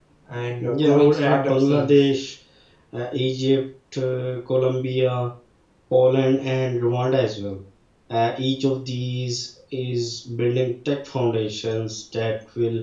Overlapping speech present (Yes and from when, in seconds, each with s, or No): Yes, from 0.6 s